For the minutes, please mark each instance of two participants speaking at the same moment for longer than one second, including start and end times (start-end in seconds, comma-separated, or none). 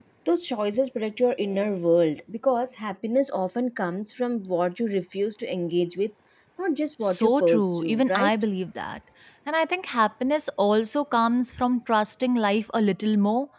7.0-8.3